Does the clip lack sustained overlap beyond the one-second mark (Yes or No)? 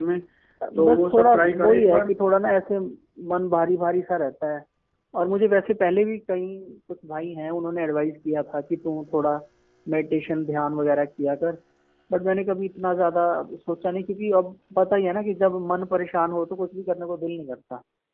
No